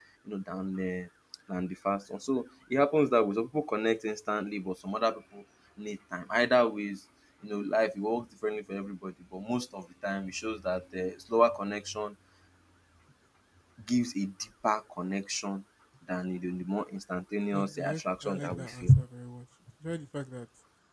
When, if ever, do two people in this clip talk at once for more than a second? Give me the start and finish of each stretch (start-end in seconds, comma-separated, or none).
17.5-18.9